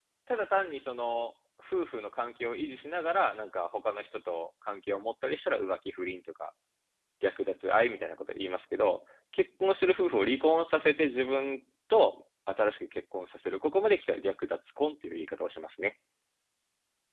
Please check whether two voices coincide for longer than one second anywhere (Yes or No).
No